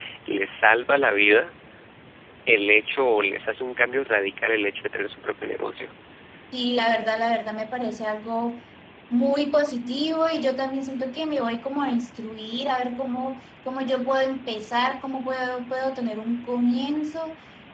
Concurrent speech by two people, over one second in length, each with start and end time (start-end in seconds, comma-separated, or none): none